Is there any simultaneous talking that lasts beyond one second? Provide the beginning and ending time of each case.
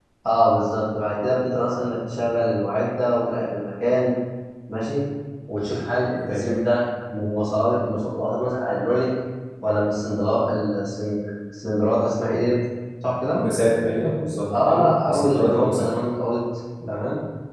14.5-15.9

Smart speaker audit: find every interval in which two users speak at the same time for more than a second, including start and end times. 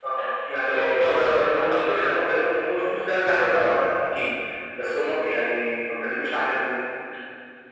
0.7-2.1

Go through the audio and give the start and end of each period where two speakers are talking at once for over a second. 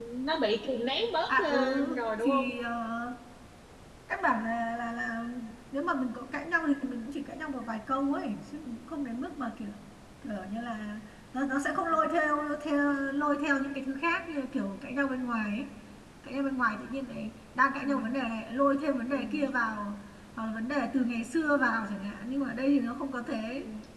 1.3-2.5

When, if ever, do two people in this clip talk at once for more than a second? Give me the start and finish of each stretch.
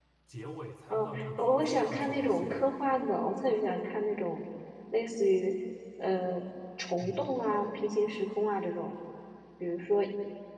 0.9-2.6

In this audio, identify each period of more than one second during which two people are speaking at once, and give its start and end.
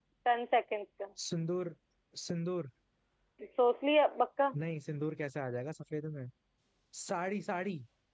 none

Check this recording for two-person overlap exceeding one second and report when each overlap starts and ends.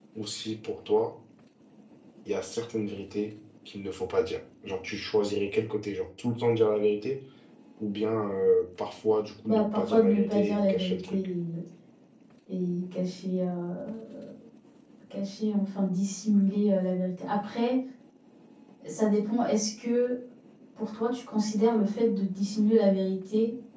9.4-11.2

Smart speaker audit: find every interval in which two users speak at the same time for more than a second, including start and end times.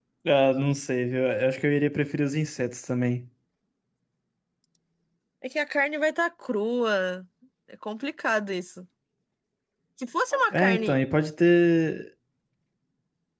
none

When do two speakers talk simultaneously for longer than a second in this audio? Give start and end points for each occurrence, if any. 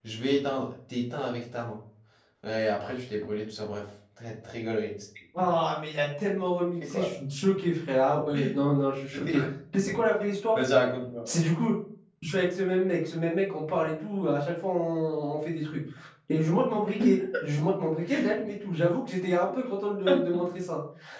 none

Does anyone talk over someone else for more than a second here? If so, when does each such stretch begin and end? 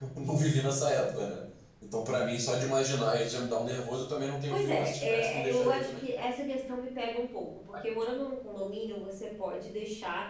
4.5-6.1

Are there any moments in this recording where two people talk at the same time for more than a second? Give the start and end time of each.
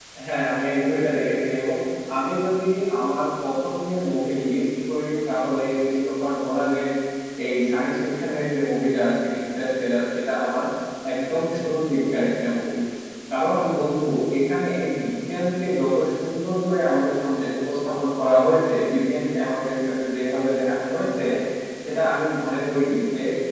none

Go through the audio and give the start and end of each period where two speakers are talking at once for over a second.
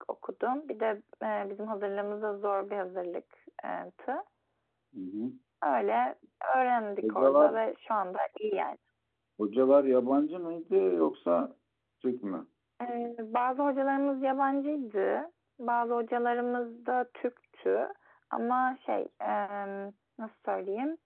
none

